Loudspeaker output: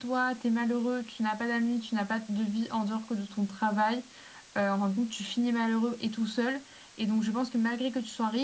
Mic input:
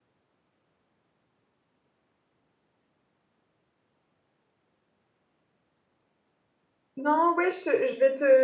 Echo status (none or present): none